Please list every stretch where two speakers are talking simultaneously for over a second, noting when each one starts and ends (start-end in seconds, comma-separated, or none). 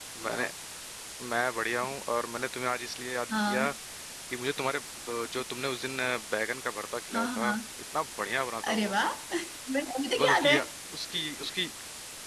none